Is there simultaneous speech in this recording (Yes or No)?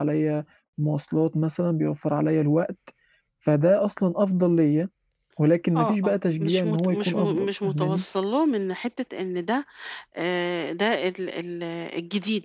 Yes